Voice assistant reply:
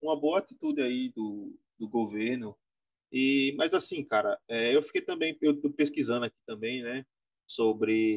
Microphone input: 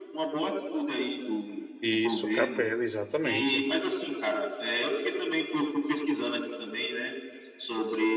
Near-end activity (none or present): present